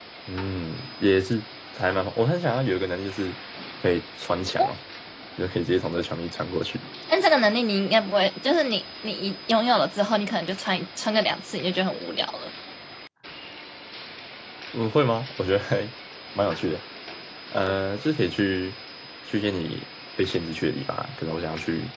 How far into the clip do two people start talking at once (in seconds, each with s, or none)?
none